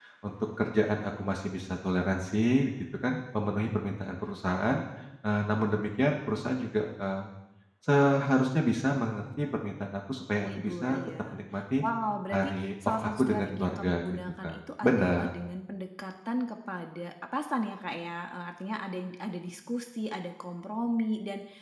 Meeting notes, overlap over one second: present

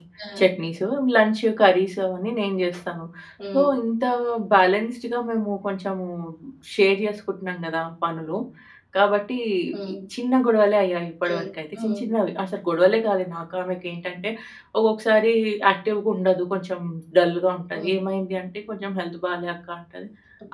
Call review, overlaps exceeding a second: none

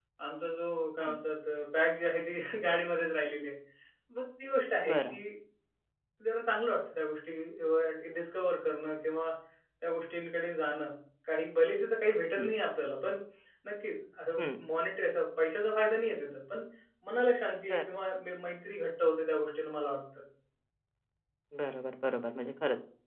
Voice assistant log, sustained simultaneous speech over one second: none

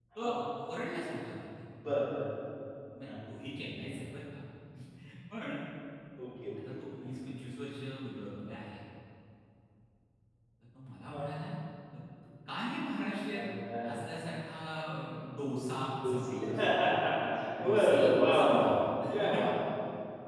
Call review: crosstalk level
present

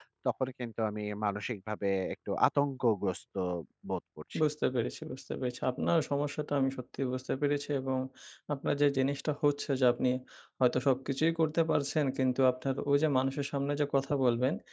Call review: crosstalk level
none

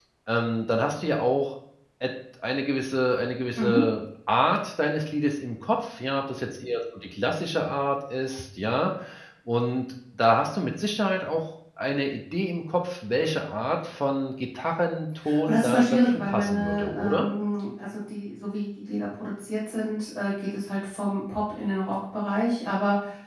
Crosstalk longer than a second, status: present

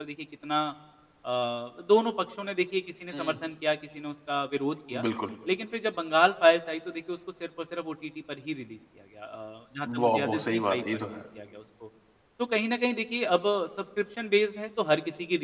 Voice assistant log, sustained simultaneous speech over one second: present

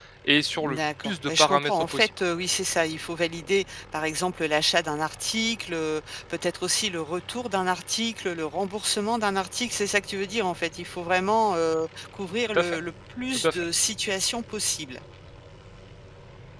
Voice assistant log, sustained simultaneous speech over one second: present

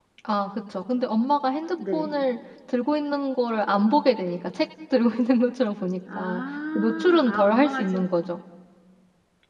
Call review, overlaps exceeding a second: present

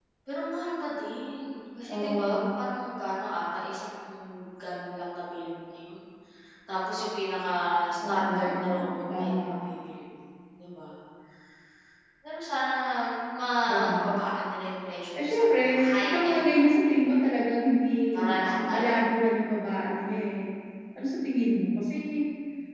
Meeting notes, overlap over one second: present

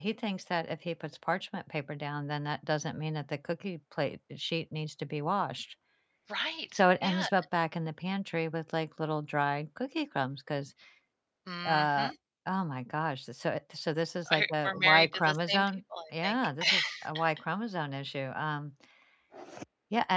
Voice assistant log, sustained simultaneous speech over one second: present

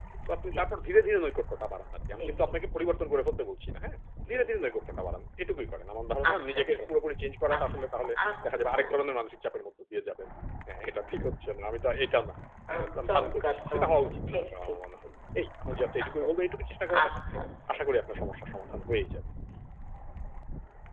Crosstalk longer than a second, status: present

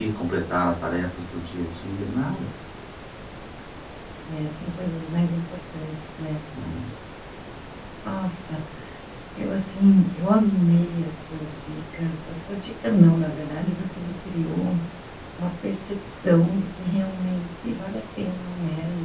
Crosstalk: none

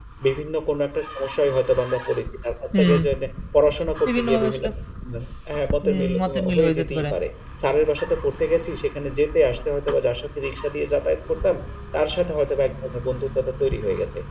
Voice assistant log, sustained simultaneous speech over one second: present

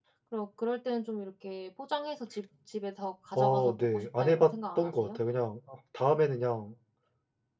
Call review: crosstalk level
present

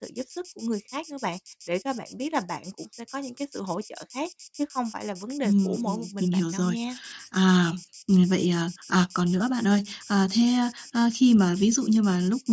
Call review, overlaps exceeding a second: present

